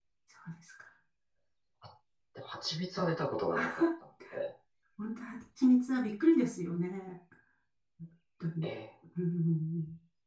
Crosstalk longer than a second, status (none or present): none